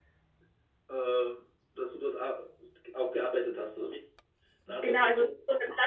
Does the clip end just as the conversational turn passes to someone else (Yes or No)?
Yes